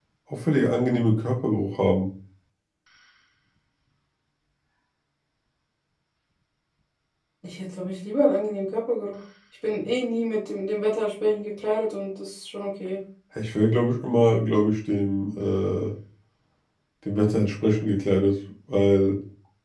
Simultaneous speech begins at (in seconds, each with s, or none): none